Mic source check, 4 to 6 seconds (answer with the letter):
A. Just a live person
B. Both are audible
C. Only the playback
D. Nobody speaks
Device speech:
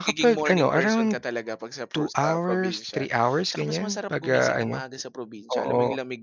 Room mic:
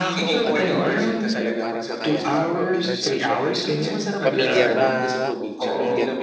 B